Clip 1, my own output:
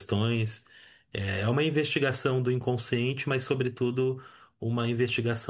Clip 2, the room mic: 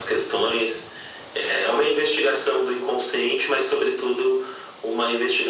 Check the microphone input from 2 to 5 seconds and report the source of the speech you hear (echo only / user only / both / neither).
echo only